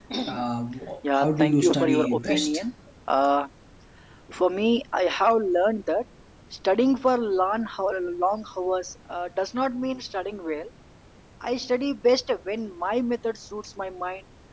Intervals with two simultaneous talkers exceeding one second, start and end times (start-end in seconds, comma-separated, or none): 1.1-2.6